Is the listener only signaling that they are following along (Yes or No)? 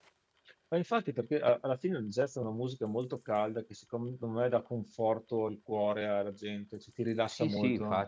No